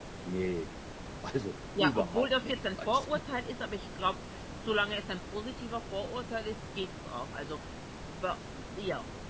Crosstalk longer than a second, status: present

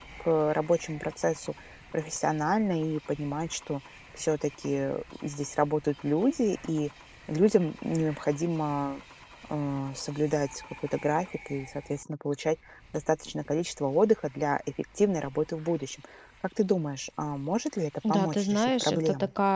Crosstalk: present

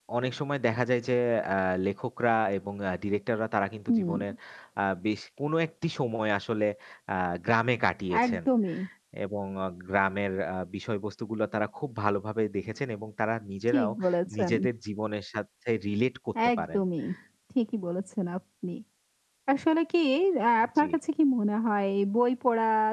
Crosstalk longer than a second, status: none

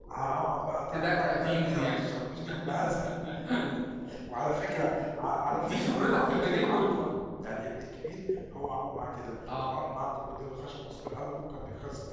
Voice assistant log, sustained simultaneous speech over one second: present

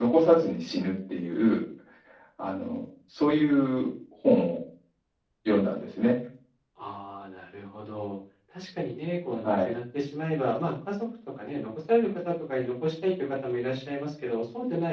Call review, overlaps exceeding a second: none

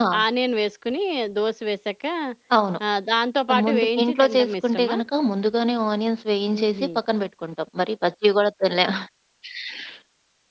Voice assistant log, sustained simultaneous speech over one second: present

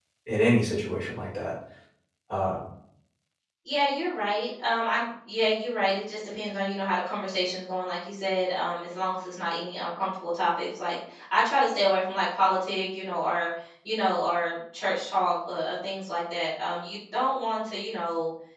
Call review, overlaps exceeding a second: none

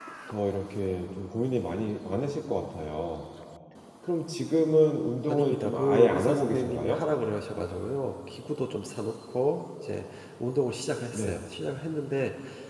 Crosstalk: present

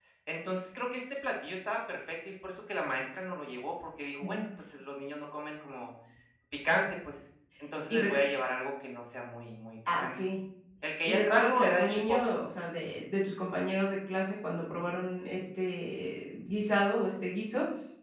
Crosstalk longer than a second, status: present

